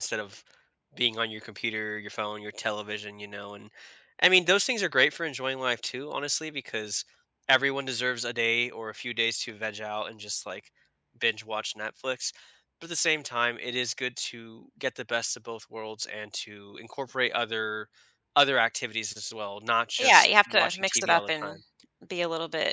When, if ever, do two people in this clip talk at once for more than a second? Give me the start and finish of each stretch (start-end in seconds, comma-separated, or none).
20.0-21.5